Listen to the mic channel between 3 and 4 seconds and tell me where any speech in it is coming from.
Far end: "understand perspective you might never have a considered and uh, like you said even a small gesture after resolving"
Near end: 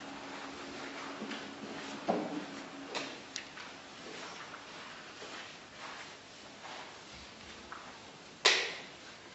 neither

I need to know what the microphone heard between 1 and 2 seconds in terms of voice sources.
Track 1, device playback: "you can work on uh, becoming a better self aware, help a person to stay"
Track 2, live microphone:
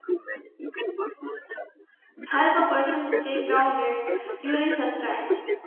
echo only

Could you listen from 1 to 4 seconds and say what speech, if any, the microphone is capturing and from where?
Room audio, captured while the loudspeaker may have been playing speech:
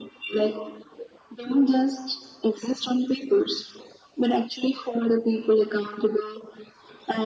echo only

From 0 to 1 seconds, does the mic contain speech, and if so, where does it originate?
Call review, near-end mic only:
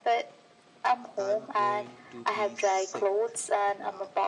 echo only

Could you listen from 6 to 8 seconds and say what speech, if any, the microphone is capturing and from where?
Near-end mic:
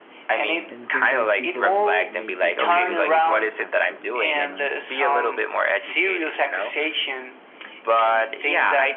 echo only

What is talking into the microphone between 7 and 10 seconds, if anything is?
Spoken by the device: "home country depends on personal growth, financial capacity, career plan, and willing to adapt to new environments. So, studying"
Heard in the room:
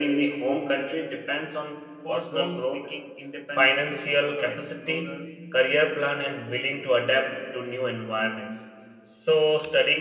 echo only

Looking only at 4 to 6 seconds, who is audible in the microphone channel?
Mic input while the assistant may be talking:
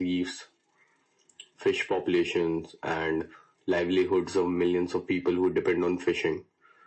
echo only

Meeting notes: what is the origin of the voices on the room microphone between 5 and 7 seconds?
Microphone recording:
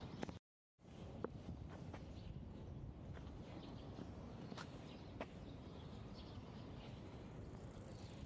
neither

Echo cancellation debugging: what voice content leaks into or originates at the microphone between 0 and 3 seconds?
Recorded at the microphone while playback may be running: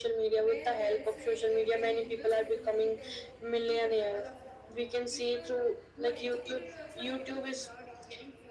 both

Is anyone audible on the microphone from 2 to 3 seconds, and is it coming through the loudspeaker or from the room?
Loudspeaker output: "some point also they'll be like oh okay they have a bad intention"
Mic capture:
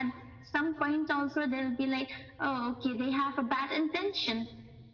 echo only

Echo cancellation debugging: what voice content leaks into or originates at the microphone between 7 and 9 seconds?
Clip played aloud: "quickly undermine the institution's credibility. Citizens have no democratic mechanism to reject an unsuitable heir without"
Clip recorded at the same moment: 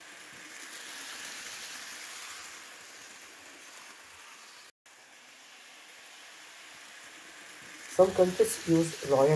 user only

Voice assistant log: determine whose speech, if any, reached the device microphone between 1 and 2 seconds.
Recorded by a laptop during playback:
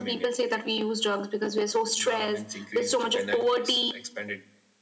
echo only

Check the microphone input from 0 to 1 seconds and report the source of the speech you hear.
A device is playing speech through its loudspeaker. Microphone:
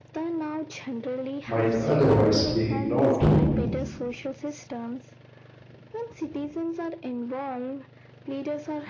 echo only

